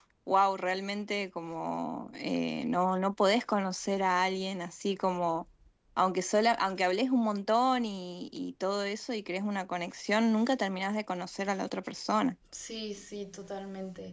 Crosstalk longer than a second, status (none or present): none